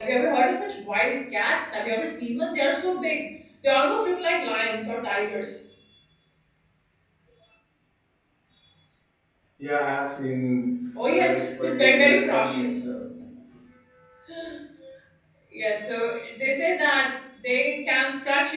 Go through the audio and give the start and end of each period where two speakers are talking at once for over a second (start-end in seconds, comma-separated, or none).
11.1-12.9